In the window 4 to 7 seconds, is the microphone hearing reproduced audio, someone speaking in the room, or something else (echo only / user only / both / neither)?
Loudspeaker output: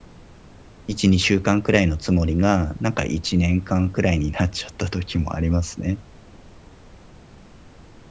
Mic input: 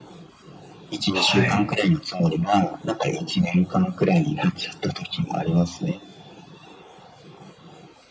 echo only